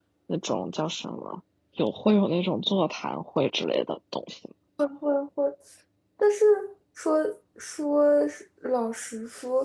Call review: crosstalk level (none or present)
none